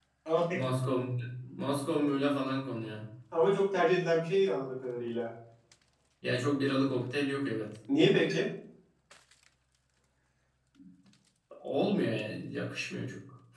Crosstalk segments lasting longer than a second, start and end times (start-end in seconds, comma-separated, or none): none